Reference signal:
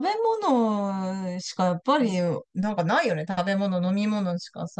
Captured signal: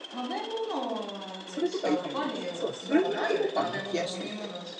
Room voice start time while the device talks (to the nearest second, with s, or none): 1 s